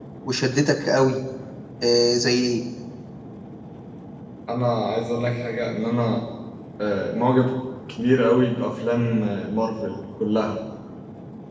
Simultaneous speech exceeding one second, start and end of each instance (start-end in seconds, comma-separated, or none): none